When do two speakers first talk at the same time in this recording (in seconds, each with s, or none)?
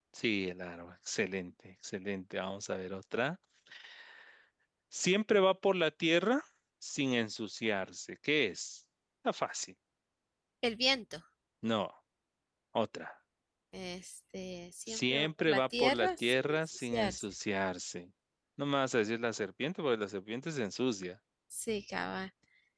14.9 s